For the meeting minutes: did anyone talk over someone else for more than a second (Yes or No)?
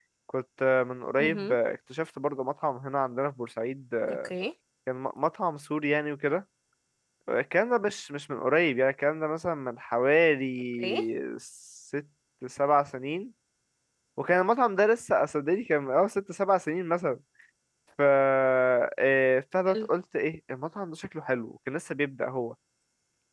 No